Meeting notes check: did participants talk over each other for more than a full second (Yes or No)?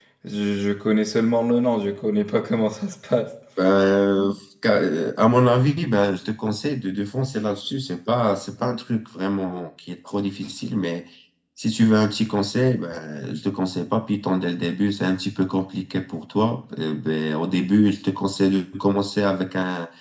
No